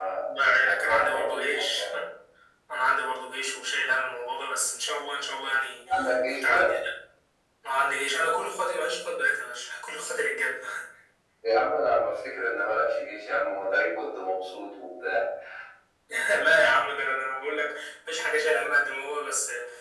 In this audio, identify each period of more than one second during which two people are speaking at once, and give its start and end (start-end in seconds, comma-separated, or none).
0.7-1.9